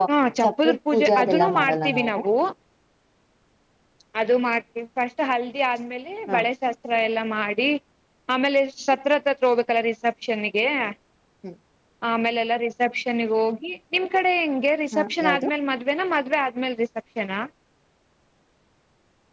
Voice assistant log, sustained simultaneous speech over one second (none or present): present